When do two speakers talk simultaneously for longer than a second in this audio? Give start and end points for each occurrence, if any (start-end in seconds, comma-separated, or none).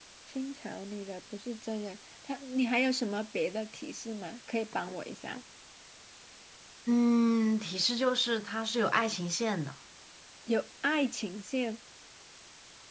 none